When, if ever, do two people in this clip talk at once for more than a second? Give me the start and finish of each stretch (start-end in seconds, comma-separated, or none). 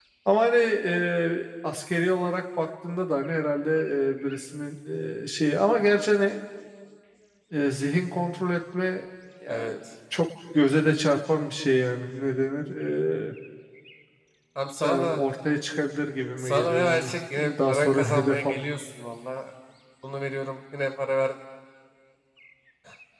16.4-18.5